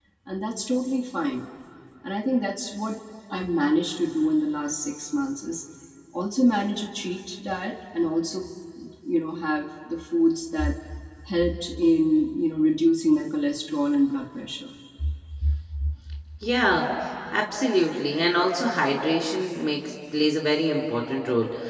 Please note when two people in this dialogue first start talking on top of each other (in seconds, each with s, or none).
none